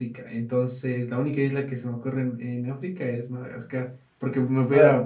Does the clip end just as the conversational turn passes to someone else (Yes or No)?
No